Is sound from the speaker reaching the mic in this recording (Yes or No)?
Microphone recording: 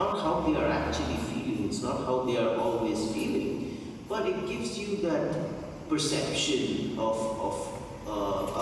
No